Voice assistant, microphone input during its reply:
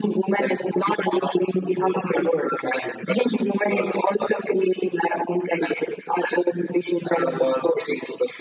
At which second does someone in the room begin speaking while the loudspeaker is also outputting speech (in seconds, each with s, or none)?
none